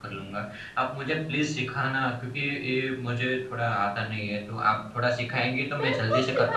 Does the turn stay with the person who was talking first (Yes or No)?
No